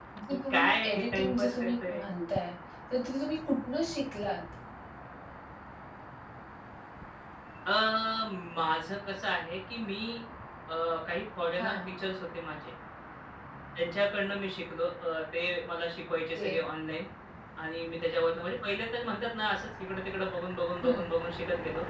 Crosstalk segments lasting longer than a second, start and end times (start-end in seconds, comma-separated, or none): 0.5-2.0